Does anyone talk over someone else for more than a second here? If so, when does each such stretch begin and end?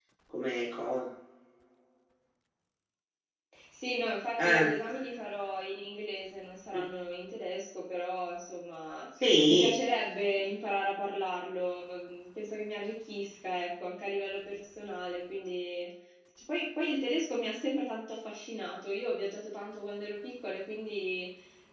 none

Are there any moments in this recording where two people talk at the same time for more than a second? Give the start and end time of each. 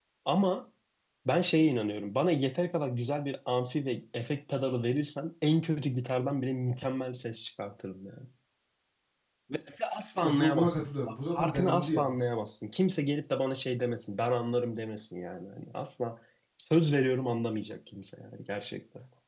10.2-12.1

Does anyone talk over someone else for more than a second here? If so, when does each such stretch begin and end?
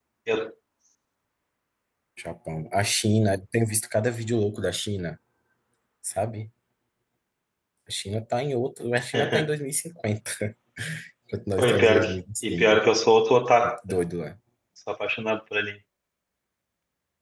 11.6-12.8

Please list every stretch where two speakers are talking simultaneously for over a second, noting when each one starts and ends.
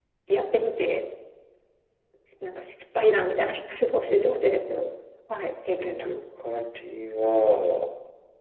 none

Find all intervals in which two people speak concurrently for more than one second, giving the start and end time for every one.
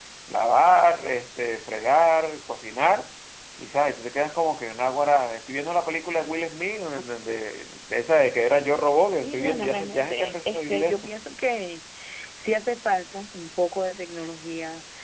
9.2-11.1

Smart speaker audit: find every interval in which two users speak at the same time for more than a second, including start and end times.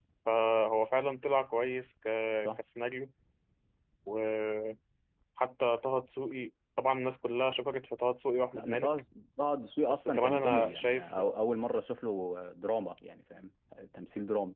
9.9-11.2

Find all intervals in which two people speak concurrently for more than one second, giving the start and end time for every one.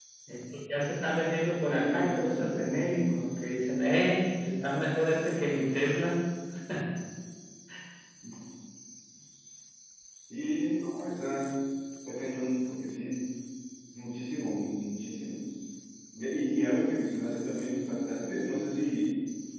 1.7-2.9

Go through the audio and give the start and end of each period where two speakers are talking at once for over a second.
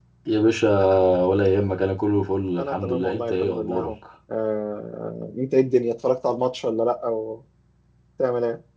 2.6-3.9

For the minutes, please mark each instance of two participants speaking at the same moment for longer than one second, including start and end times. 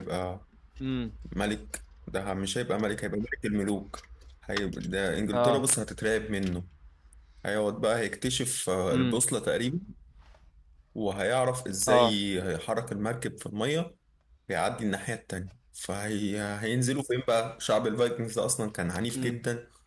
none

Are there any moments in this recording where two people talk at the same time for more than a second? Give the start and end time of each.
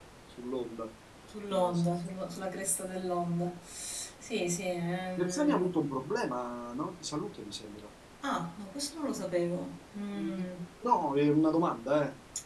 none

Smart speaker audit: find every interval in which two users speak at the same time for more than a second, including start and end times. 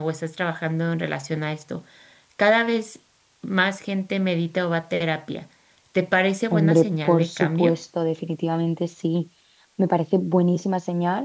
6.5-7.7

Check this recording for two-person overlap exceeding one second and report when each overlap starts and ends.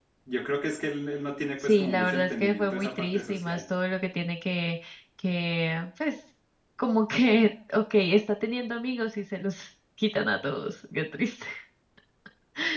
1.6-3.6

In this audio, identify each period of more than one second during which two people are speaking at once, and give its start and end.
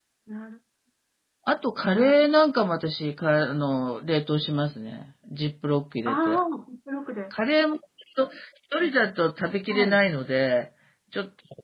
none

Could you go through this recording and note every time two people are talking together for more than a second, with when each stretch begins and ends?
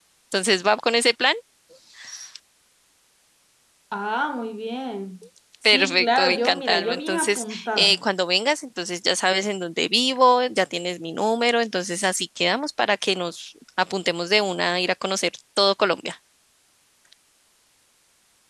5.6-8.0

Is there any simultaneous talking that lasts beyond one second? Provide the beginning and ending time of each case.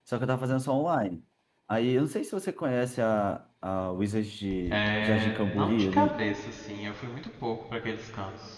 4.7-6.1

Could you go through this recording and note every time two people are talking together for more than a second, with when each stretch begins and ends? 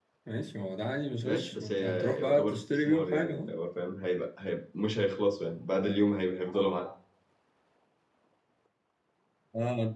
1.2-3.5

